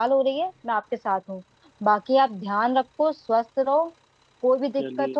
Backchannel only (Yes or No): Yes